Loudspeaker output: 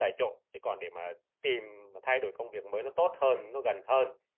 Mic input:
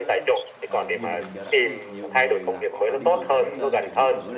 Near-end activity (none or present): present